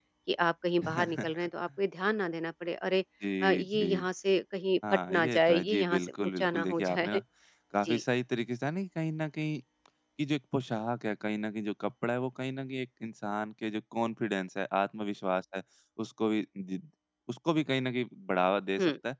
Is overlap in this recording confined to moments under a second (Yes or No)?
No